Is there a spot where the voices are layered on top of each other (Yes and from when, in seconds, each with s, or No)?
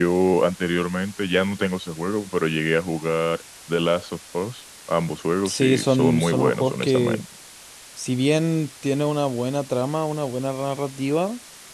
Yes, from 5.5 s